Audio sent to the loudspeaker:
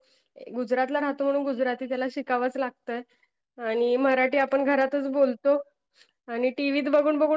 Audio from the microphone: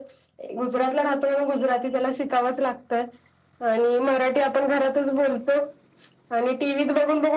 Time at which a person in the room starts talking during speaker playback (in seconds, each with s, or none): none